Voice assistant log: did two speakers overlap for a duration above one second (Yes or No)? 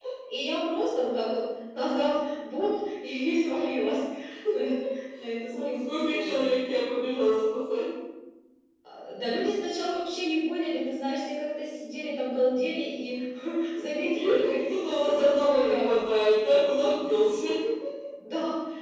Yes